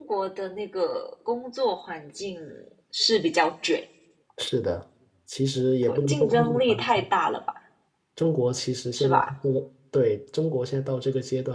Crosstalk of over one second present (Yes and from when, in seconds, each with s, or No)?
Yes, from 5.8 s